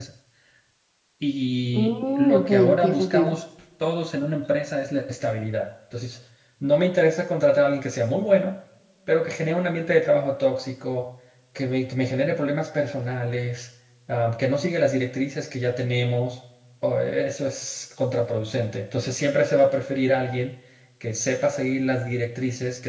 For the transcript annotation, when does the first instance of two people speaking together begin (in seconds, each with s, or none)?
1.8 s